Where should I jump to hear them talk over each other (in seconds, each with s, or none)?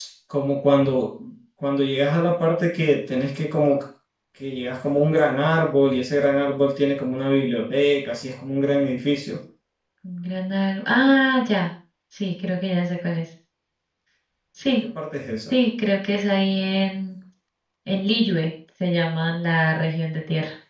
none